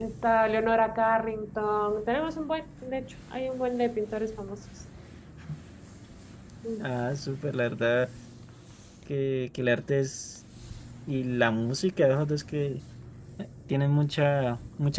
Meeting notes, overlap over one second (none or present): none